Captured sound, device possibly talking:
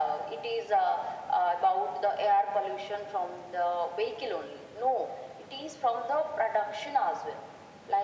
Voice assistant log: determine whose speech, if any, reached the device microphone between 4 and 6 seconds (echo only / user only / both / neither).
echo only